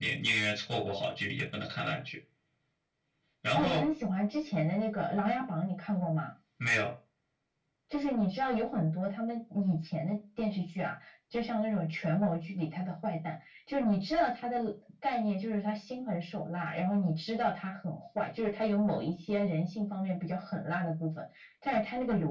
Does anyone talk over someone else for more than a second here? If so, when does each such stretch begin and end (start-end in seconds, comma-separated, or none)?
none